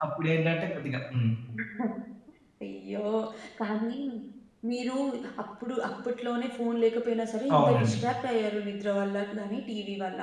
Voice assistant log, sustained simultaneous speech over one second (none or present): none